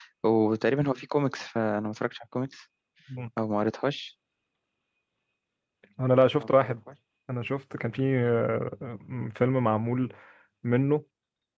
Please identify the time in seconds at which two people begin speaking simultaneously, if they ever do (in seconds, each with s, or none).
none